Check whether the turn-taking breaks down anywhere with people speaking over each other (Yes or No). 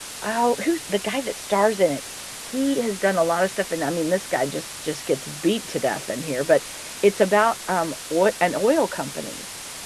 No